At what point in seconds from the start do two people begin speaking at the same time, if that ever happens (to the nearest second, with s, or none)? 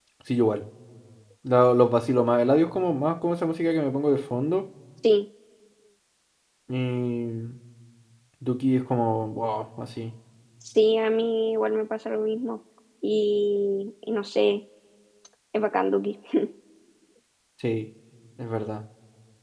none